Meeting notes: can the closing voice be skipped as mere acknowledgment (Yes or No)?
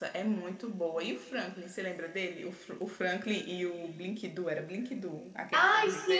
No